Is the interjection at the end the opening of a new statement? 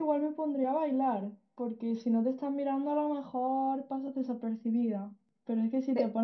No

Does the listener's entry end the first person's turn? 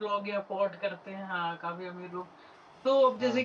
No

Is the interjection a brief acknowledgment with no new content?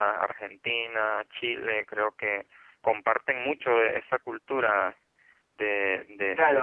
No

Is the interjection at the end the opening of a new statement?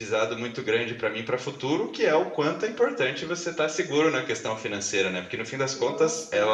No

